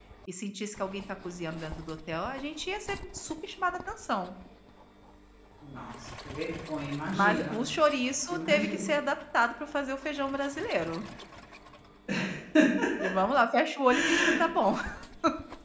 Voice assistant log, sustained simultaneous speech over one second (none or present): none